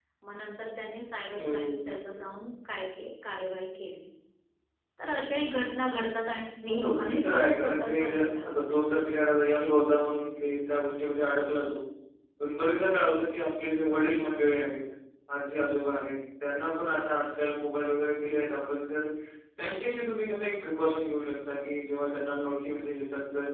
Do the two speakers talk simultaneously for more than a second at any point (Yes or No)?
Yes